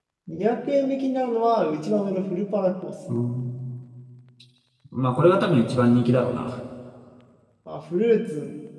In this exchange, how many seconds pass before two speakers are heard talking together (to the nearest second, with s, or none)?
none